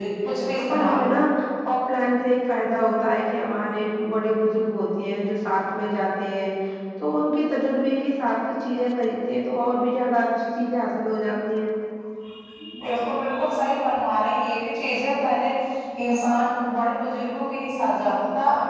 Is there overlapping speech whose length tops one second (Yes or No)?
No